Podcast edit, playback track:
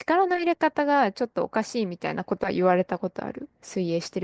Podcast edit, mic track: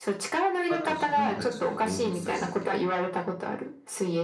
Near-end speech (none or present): present